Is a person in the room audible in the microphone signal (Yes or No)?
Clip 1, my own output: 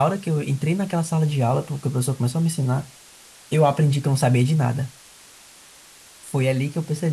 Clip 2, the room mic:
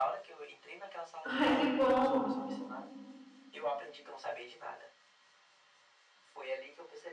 Yes